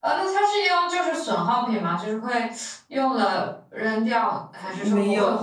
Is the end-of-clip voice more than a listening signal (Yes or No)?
Yes